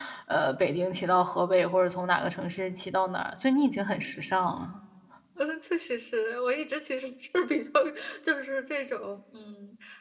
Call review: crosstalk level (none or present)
none